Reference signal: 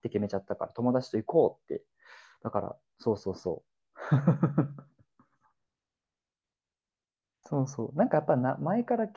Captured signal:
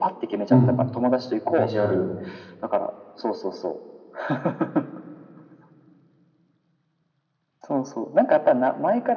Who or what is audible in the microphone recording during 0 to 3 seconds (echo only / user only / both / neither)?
both